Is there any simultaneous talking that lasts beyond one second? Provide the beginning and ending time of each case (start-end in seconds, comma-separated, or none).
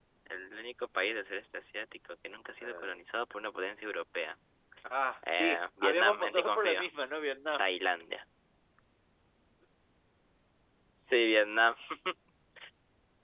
5.3-6.9